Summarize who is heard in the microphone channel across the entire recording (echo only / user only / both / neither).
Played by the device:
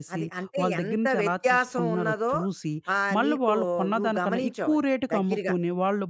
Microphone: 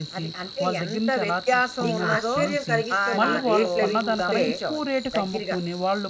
both